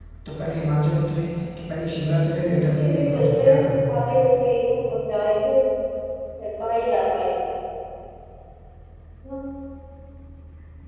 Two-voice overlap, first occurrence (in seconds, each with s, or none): 2.3 s